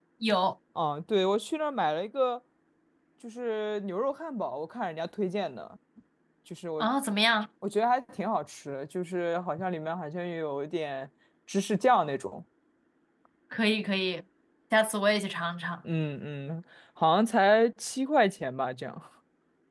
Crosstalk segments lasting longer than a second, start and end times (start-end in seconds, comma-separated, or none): none